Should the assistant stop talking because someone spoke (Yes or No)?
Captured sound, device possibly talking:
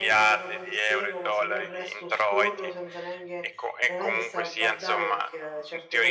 Yes